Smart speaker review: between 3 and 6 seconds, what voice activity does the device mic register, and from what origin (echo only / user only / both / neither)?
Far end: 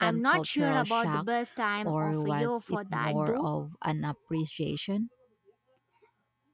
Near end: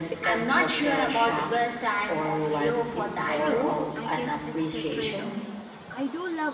both